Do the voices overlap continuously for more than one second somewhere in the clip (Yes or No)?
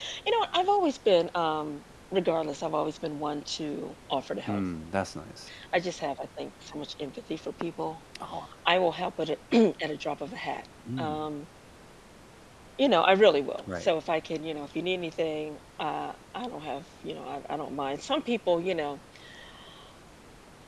No